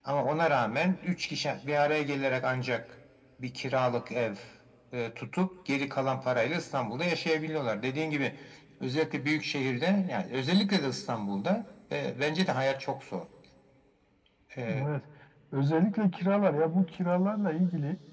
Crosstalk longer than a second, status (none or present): none